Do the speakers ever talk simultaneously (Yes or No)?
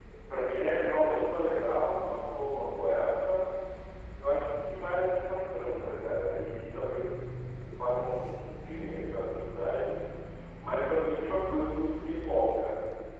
No